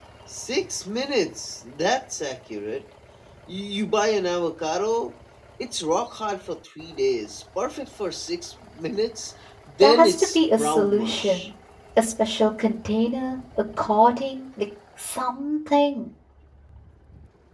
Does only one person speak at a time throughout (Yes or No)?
No